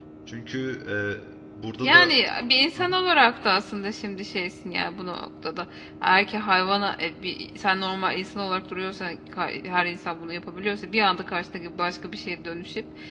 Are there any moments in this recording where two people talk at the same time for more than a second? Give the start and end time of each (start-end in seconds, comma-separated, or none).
none